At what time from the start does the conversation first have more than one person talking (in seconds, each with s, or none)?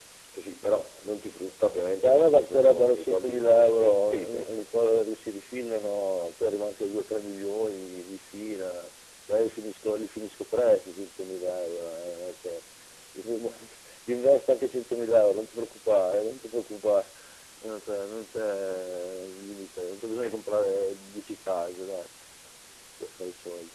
2.0 s